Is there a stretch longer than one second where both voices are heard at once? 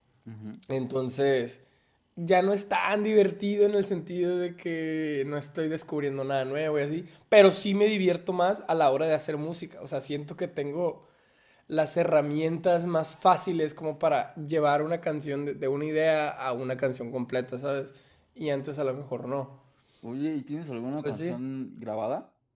No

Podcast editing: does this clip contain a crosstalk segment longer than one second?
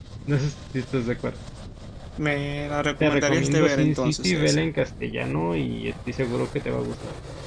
Yes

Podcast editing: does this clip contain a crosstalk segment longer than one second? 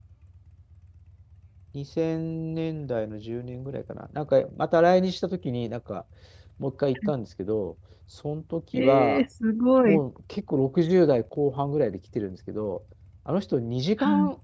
No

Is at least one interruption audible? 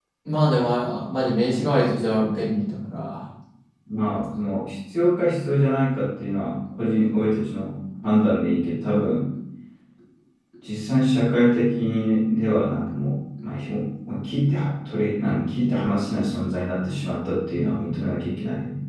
No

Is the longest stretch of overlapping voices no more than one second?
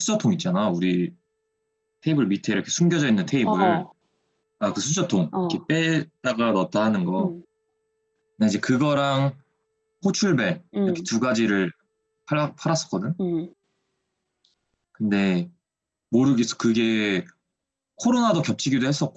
Yes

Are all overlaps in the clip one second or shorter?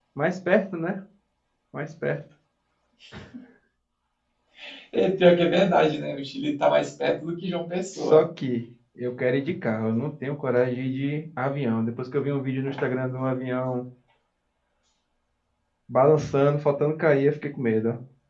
Yes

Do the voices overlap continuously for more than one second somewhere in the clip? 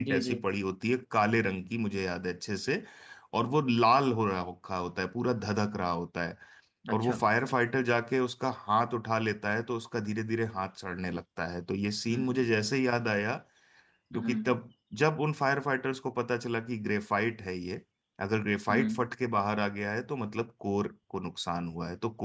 No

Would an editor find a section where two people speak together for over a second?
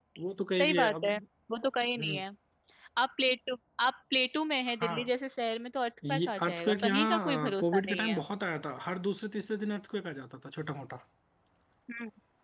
Yes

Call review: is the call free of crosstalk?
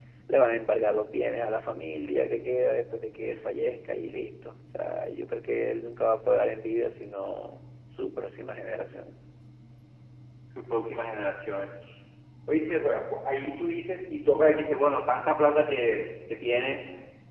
Yes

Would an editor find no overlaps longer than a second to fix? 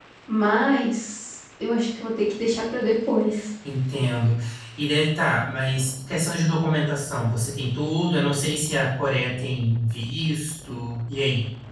Yes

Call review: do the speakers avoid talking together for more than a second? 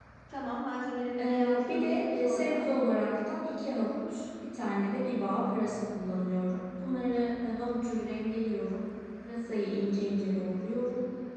No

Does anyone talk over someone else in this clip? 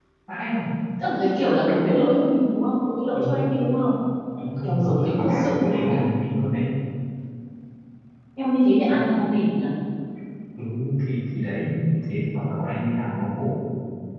Yes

